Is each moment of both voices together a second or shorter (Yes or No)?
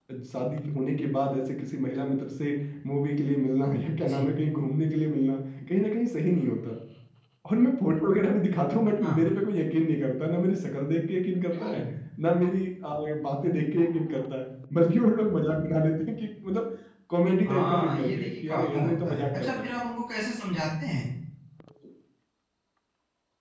No